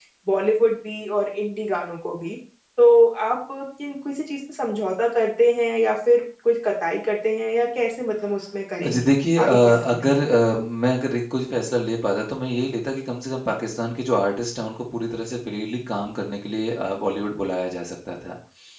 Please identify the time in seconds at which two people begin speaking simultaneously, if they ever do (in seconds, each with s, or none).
8.8 s